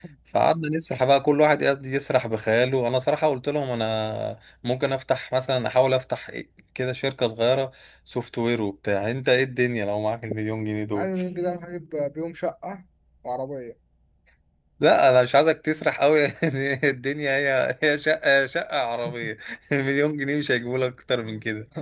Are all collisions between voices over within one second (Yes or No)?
Yes